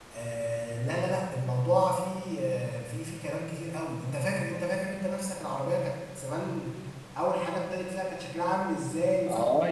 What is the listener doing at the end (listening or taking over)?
taking over